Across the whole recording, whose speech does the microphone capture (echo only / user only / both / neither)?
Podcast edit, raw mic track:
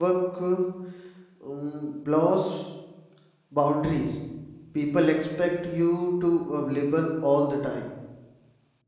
user only